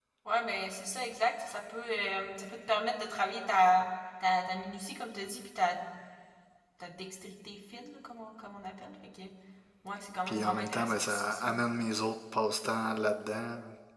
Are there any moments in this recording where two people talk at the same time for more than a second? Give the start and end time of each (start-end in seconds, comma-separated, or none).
10.3-11.5